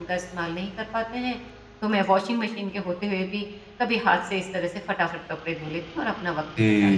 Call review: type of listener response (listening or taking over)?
taking over